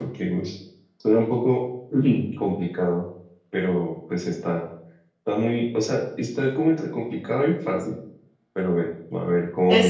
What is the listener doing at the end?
taking over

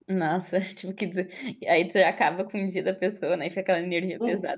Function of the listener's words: taking over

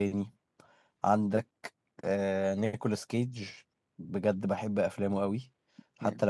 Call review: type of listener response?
listening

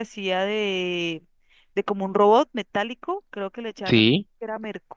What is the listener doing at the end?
listening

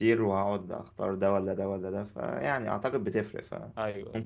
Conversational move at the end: listening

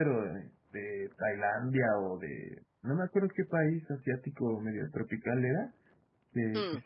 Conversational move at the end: listening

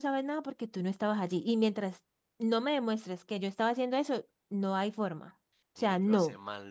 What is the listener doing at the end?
taking over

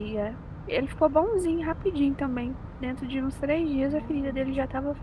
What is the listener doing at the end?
listening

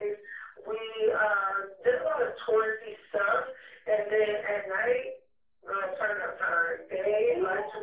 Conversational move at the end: listening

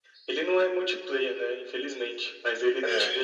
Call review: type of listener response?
listening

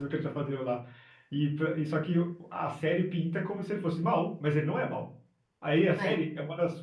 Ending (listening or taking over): listening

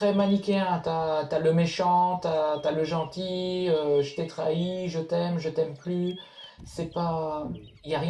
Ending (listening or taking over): listening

